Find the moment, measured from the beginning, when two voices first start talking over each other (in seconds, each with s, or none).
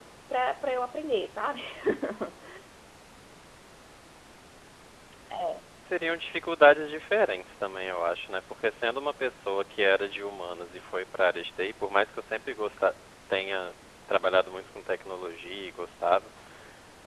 none